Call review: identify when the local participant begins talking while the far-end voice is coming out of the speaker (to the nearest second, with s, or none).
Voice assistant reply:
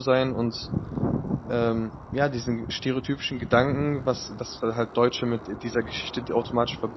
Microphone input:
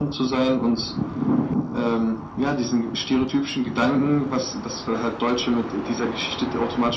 none